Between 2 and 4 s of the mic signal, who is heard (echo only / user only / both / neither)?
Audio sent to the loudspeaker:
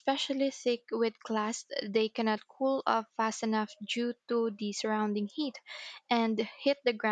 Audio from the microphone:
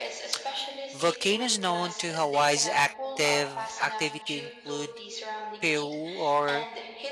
both